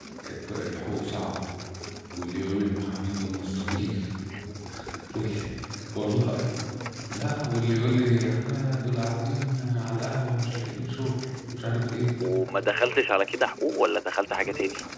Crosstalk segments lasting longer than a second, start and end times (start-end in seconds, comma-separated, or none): none